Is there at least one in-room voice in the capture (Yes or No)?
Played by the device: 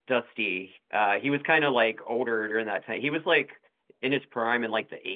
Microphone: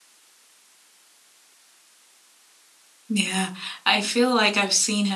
Yes